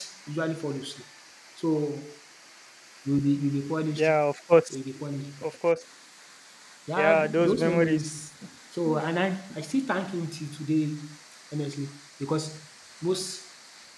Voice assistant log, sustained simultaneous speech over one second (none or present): present